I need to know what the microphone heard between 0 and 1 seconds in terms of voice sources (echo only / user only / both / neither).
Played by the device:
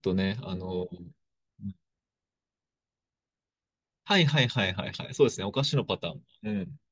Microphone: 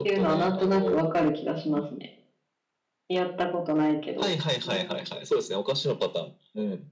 both